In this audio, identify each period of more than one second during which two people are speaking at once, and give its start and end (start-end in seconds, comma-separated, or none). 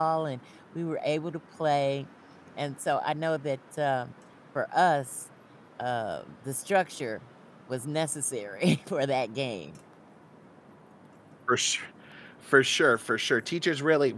none